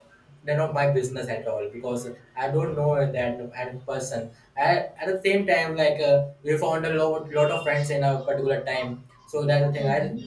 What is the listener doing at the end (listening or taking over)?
listening